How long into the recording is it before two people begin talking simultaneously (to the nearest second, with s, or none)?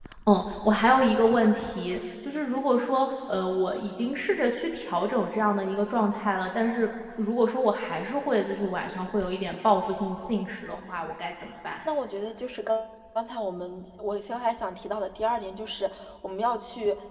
none